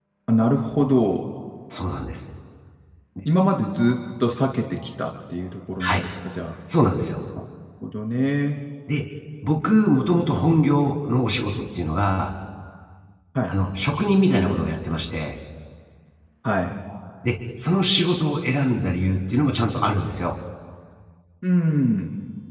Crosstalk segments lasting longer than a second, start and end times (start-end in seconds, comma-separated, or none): none